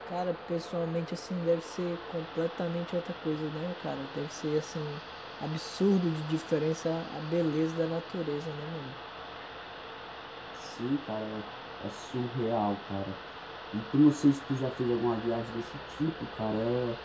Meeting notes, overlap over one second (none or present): none